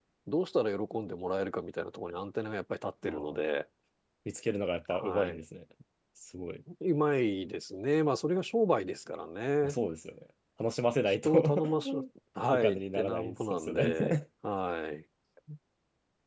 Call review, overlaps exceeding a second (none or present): present